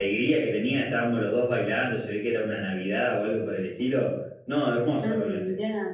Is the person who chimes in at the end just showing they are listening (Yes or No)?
No